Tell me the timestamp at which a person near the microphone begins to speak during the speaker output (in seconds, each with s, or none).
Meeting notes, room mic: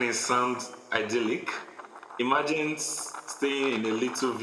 none